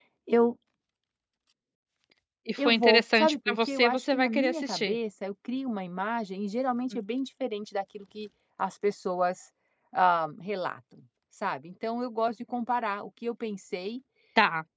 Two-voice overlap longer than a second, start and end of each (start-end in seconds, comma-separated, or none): 2.6-5.0